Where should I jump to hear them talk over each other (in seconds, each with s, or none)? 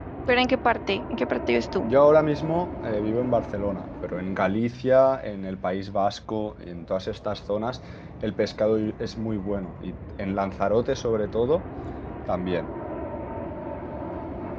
none